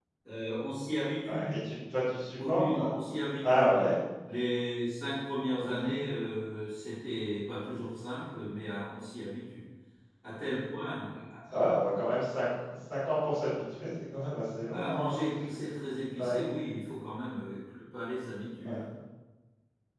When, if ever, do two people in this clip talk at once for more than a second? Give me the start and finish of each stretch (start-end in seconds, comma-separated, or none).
none